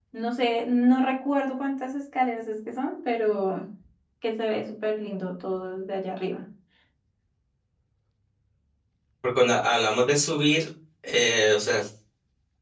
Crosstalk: none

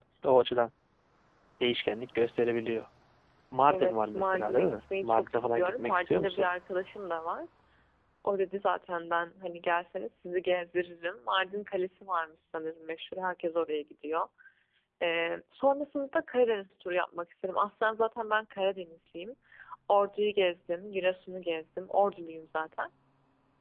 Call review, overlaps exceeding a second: present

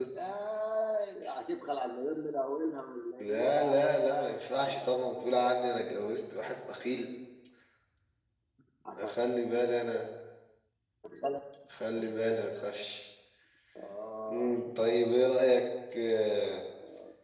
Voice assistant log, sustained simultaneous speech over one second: present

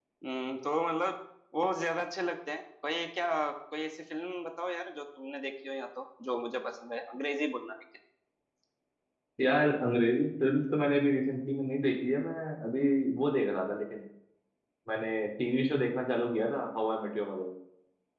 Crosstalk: none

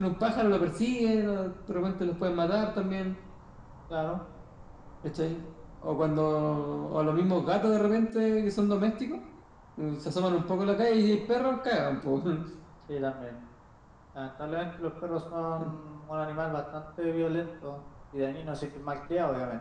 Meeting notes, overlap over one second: none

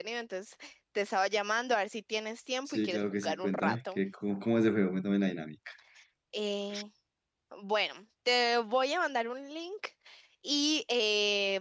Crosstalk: present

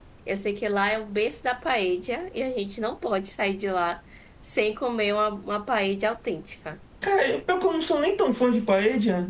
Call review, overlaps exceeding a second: none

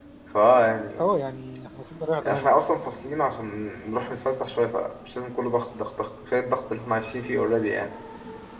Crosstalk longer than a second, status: none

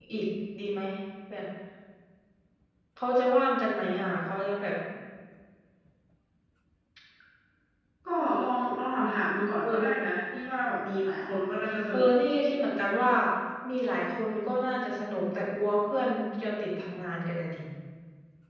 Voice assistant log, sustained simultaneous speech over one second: none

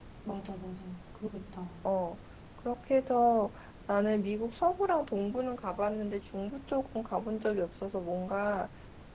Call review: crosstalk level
none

